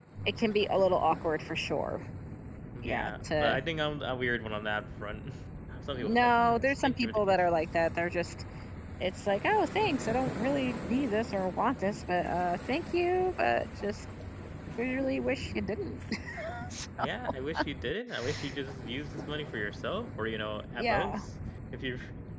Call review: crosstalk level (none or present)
present